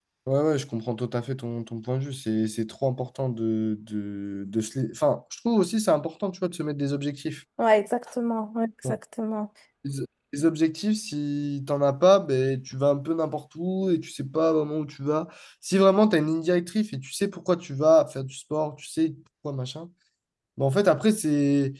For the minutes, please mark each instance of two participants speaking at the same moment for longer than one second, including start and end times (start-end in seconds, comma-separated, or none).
none